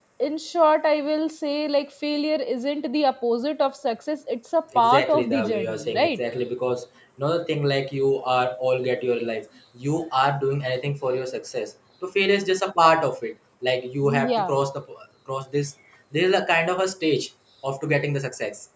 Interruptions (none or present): present